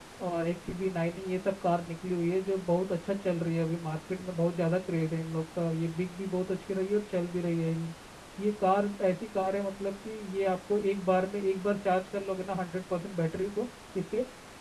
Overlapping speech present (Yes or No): No